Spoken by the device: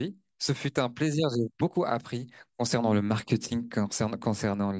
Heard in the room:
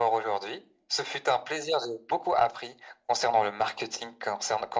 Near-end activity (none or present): none